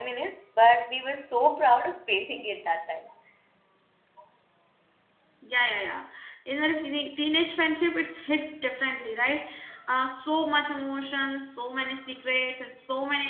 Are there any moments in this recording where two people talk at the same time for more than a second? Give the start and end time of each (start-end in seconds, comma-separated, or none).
none